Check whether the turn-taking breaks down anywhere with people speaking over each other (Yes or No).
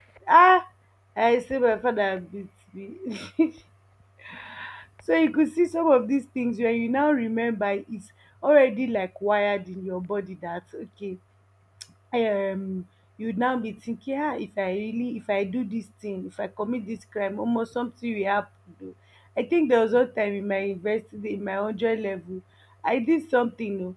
No